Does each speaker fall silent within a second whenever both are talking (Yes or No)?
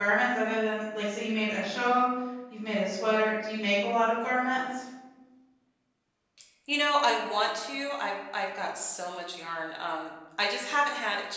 Yes